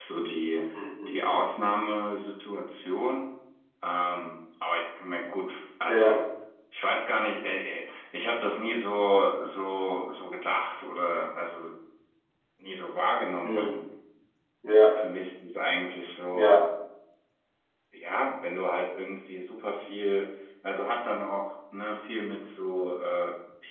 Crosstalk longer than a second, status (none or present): none